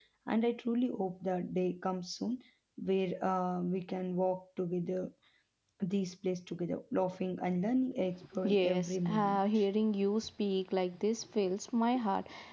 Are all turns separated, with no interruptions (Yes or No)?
No